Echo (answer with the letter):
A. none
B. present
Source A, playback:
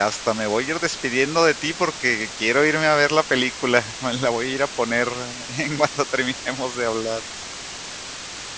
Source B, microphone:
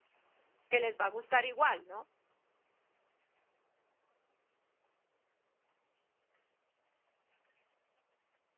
A